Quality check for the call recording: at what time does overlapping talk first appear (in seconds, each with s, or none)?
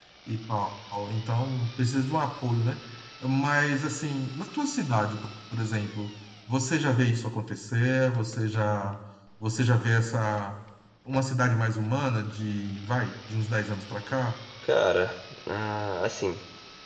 none